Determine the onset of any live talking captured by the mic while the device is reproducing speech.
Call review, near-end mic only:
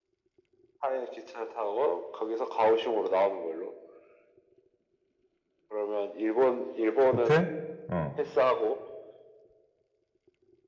7 s

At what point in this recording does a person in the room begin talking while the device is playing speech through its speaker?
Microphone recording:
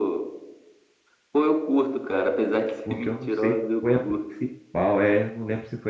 3 s

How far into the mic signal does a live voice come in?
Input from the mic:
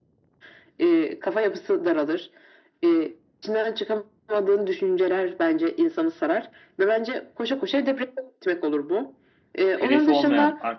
10 s

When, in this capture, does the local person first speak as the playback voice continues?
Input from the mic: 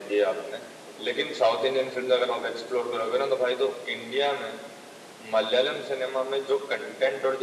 none

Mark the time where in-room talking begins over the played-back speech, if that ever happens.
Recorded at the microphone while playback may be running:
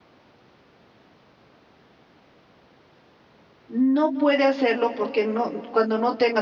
4 s

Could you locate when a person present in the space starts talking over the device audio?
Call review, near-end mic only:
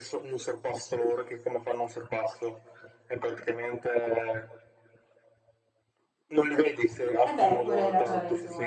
7 s

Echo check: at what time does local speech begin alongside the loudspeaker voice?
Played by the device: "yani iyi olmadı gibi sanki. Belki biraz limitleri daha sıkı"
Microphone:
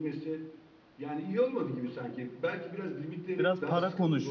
3 s

